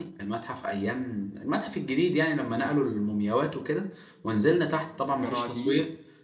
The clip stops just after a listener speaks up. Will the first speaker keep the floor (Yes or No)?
Yes